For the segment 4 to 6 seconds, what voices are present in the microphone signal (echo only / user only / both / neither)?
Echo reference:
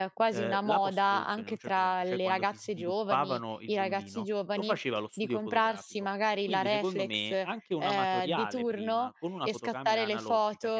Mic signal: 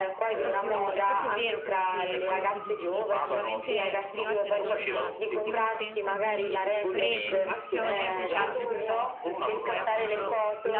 both